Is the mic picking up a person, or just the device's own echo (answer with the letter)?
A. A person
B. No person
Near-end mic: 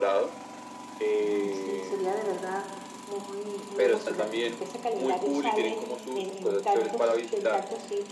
A